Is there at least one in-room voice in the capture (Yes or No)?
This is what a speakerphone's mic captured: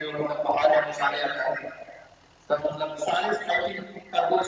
No